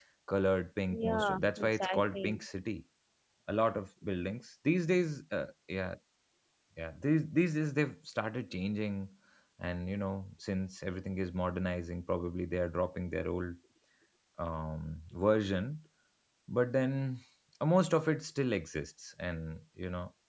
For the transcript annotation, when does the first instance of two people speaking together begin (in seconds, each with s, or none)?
0.9 s